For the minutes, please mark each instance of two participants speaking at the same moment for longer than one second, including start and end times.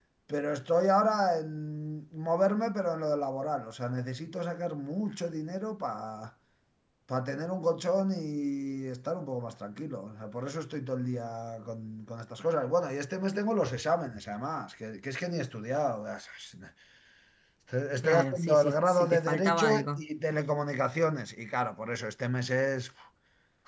18.0-20.0

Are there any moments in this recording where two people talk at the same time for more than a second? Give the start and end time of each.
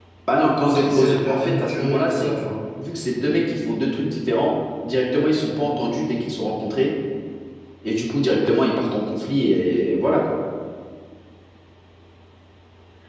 0.6-2.3

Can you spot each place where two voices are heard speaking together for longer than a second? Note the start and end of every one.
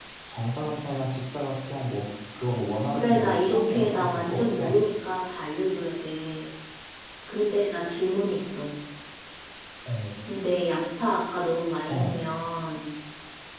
2.9-4.8

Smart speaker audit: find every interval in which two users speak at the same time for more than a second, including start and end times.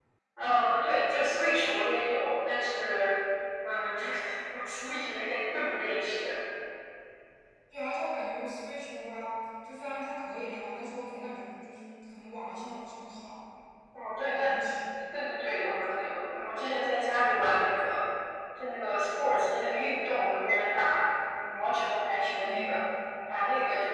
none

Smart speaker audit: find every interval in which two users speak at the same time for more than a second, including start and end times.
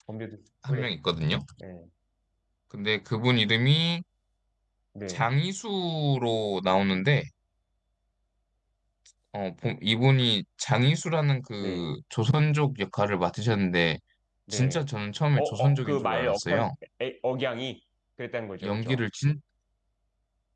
15.4-16.7

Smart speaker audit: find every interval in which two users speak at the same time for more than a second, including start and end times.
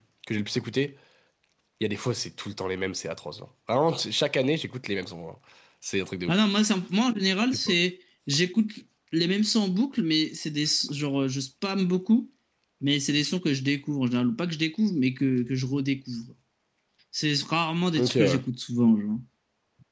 none

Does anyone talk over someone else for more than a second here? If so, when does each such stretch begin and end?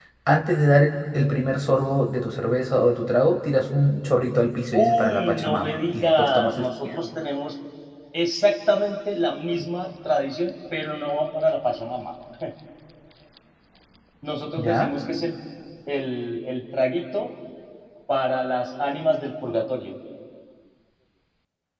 4.7-6.9

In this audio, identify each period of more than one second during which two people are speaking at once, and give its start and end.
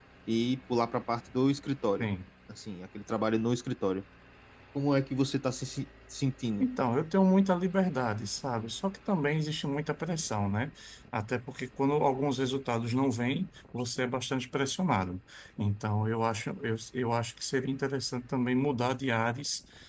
none

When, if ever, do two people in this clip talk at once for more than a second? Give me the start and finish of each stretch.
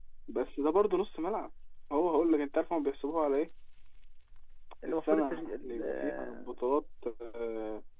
4.9-6.5

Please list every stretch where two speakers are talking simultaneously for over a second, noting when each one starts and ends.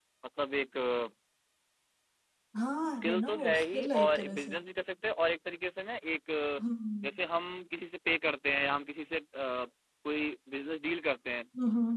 2.9-4.5

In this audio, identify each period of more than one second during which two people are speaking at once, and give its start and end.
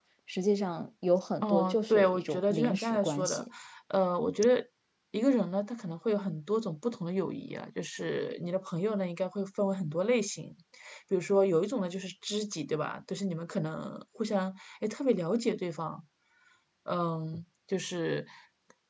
1.4-3.4

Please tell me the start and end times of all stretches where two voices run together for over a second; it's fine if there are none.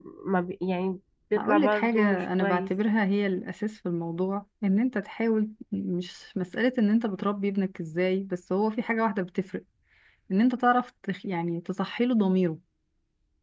1.4-2.7

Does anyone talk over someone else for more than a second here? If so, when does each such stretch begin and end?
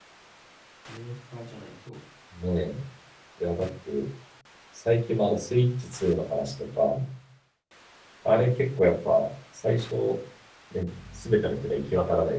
none

